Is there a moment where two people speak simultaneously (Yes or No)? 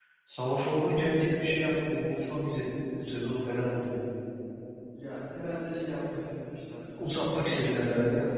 Yes